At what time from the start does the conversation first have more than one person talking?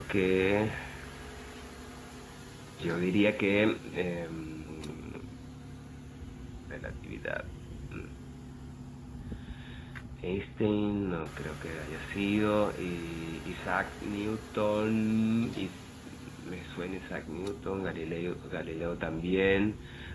none

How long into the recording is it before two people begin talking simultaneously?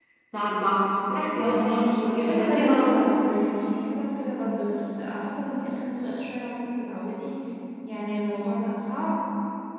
1.4 s

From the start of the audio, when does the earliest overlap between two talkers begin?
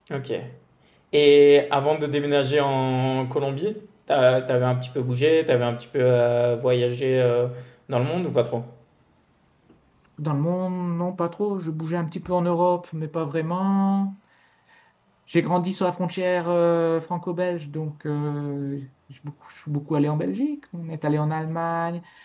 none

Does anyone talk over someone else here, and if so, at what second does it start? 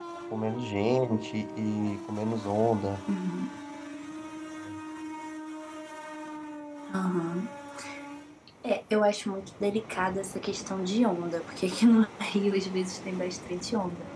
none

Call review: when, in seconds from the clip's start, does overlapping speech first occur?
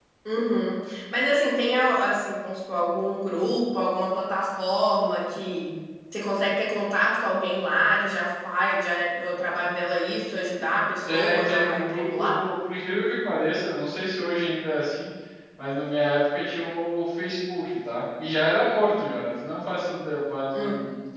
11.1 s

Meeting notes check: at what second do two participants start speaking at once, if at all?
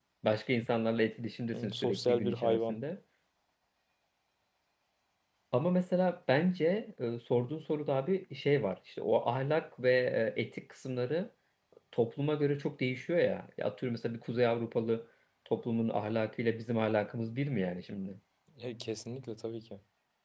1.5 s

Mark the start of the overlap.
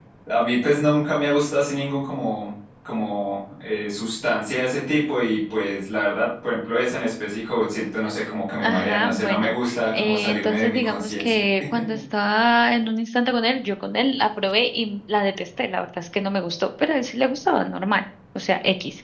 8.6 s

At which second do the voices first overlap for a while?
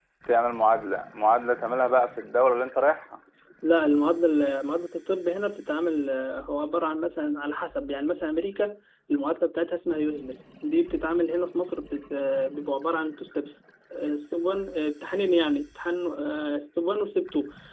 none

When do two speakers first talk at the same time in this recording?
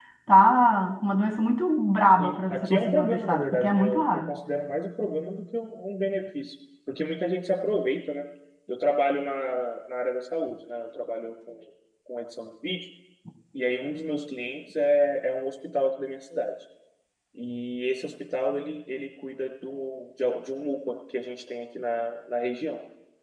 2.2 s

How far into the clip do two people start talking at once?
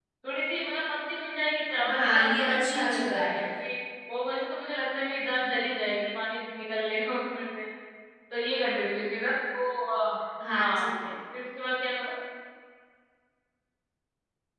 1.9 s

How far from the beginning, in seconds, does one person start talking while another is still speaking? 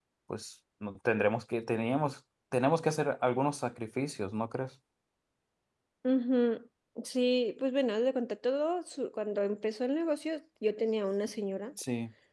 none

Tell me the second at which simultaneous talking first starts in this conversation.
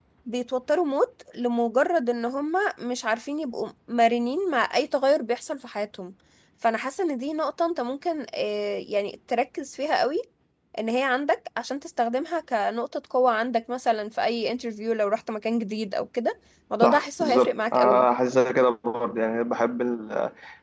16.8 s

